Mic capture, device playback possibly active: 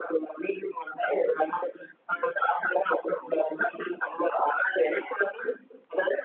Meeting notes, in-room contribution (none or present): none